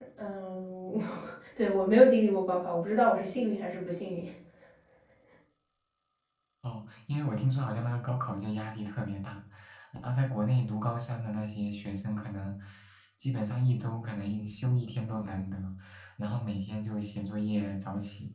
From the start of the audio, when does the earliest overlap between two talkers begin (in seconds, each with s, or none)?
none